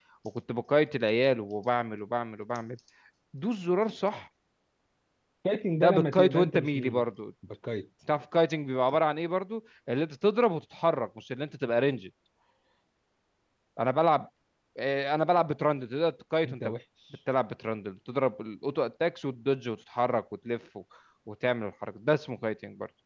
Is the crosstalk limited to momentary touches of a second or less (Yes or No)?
No